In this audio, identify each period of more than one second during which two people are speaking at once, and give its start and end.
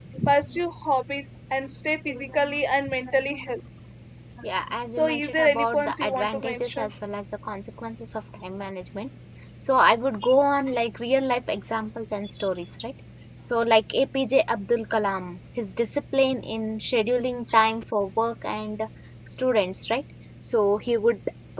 4.9-6.9

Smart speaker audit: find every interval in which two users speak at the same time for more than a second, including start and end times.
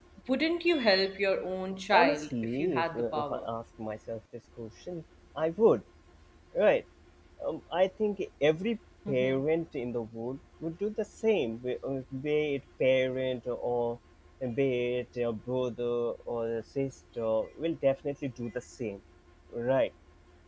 1.9-3.4

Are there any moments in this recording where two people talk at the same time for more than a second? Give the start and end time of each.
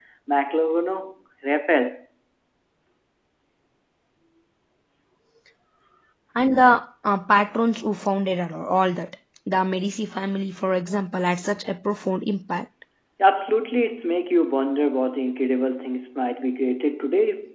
none

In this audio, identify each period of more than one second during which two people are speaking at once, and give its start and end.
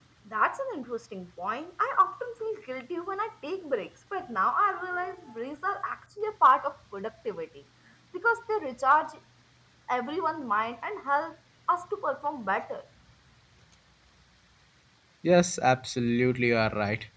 none

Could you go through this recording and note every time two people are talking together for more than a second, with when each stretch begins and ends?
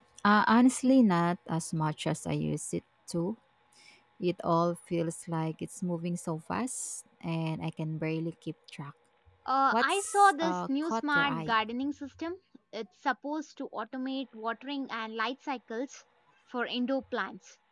9.7-11.5

